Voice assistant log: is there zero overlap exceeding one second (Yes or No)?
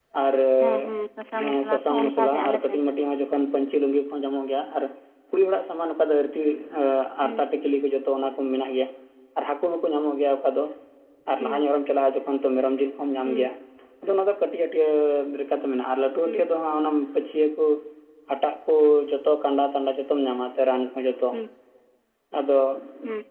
No